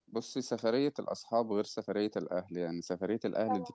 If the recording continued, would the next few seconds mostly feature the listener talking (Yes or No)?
No